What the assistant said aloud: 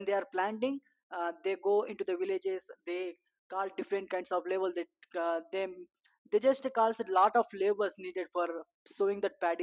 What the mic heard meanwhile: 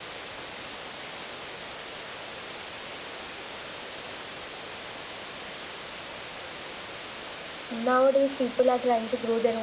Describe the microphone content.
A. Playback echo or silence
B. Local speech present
B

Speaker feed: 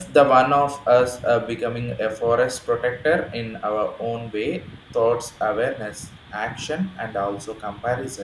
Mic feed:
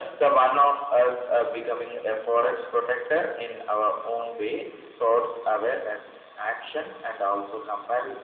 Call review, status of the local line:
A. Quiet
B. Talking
A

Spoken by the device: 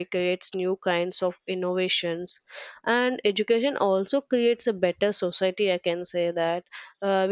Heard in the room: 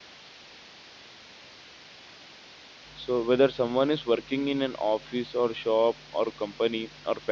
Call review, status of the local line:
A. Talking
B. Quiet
A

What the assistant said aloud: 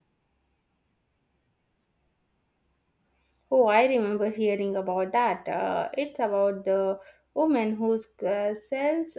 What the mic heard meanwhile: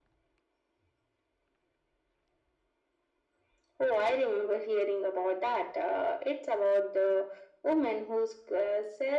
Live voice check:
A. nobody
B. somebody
A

